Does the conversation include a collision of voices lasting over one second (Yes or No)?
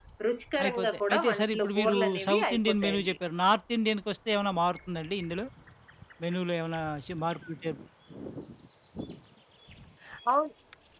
Yes